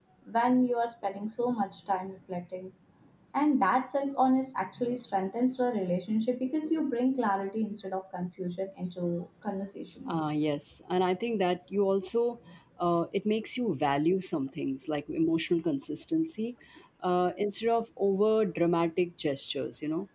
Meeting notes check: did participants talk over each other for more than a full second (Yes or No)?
No